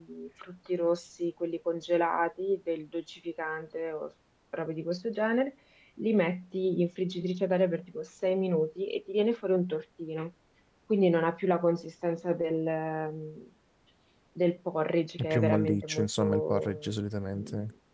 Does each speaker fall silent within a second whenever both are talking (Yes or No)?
No